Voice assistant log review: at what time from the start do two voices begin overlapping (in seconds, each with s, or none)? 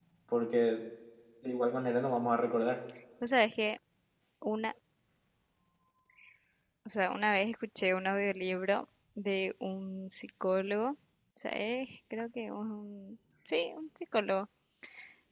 none